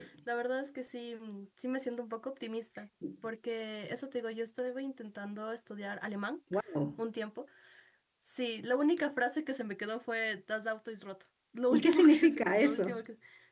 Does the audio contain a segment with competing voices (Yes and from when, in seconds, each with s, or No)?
Yes, from 11.7 s